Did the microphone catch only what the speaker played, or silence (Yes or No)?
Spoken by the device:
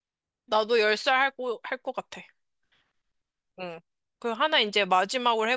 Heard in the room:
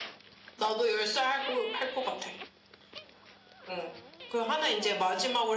Yes